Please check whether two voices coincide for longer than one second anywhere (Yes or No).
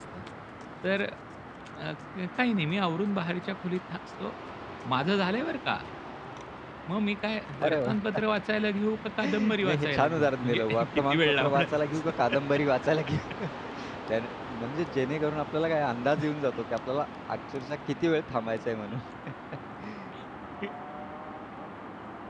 Yes